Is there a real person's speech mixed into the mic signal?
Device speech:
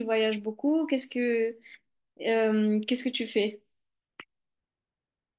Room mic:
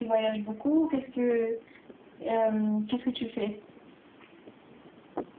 No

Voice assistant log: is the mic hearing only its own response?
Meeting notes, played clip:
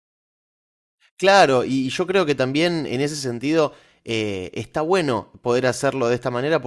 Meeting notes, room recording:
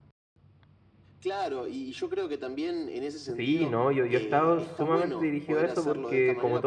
No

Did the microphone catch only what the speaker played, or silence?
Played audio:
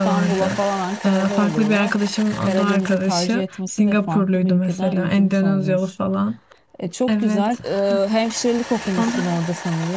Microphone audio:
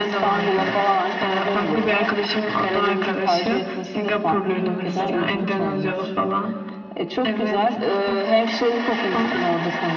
No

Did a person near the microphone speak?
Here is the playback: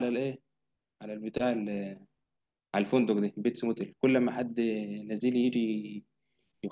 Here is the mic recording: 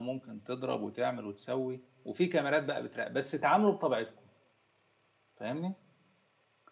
Yes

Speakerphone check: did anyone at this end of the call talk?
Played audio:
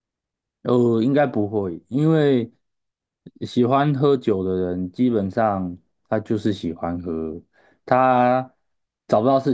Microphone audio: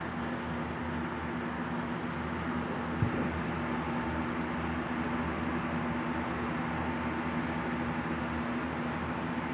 No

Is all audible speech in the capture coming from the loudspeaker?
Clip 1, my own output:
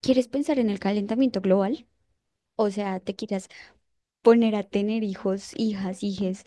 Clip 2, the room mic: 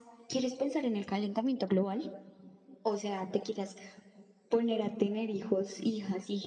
Yes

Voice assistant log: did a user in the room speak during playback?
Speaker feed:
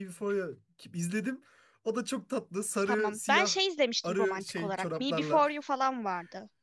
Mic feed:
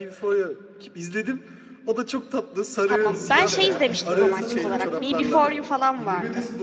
Yes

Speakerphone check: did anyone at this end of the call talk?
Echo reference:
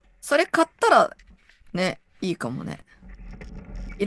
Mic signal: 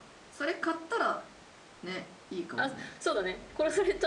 Yes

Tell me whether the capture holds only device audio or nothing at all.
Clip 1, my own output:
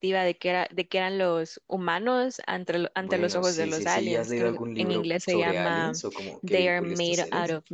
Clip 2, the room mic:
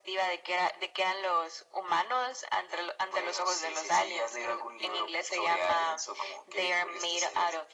Yes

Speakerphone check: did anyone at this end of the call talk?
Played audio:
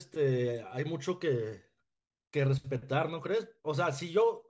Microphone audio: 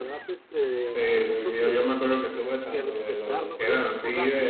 Yes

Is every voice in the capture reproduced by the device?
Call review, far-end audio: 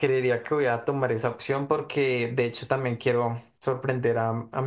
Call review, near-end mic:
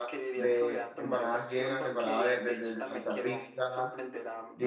No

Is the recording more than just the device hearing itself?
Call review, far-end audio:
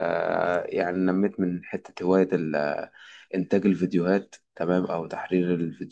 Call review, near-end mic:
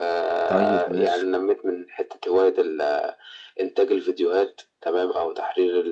Yes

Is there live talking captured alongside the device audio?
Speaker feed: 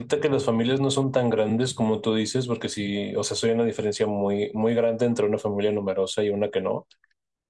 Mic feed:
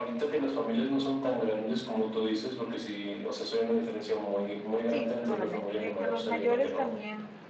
Yes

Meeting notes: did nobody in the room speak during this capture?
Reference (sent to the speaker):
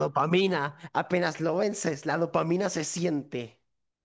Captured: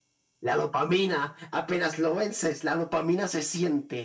Yes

